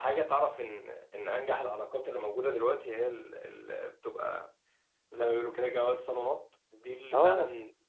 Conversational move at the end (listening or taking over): listening